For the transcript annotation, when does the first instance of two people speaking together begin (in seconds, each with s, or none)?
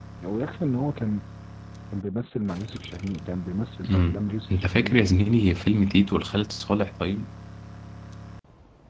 3.8 s